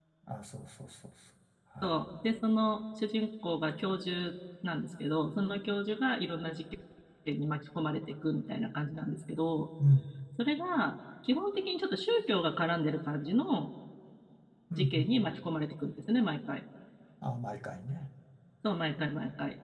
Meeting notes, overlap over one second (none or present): none